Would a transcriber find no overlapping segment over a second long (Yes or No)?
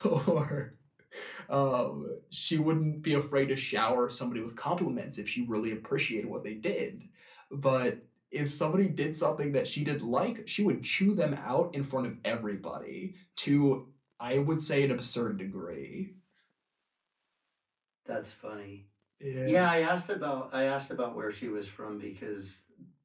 Yes